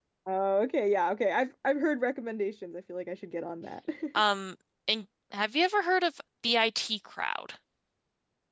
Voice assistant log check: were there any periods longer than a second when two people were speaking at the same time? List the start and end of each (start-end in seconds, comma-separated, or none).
none